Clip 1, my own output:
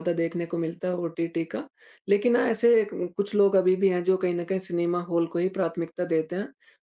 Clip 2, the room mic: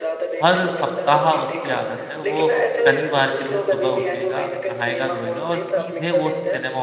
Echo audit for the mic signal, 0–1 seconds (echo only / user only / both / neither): both